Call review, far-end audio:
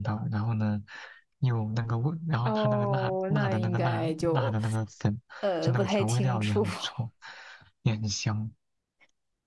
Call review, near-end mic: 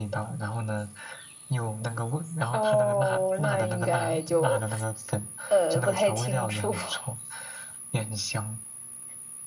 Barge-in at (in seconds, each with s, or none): none